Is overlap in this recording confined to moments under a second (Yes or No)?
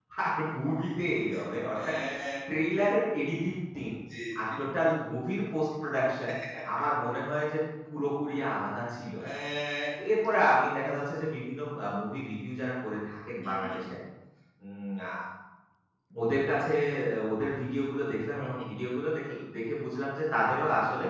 Yes